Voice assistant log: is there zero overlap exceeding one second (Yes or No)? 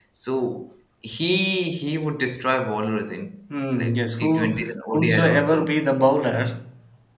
No